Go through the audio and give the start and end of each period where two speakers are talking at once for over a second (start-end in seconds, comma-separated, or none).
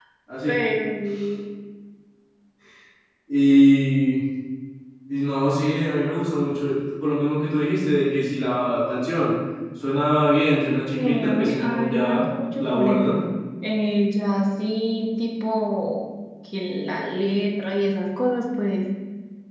11.0-13.2